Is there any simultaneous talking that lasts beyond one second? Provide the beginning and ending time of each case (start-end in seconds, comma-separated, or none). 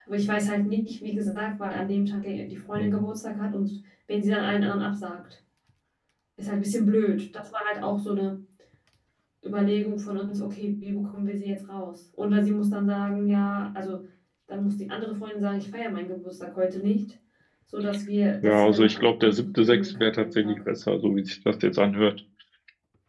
18.4-20.6